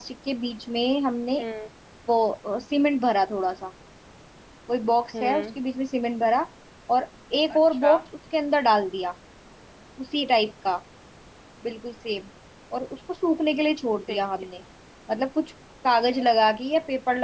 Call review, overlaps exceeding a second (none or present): none